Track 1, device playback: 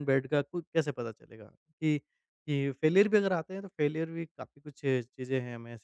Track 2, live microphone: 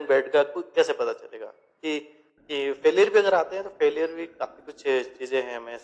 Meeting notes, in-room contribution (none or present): none